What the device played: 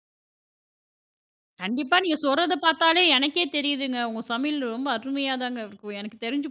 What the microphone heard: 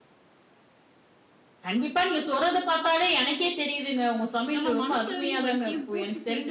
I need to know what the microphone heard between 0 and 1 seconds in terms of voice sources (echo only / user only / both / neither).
neither